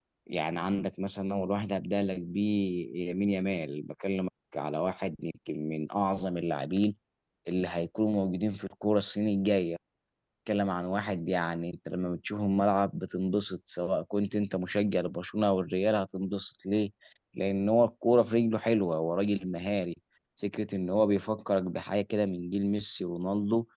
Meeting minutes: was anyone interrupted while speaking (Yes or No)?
No